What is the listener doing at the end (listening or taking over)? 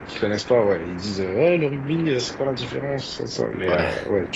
listening